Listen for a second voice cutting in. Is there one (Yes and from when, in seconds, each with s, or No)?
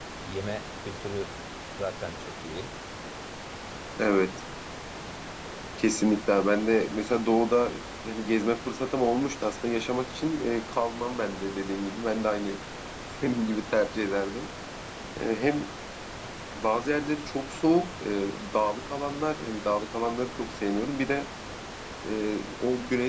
No